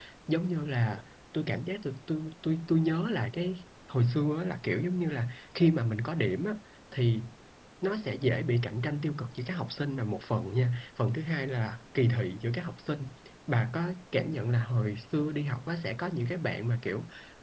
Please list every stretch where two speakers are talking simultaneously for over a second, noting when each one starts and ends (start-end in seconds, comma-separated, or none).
none